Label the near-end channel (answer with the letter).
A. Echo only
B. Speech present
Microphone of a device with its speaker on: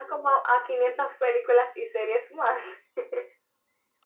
A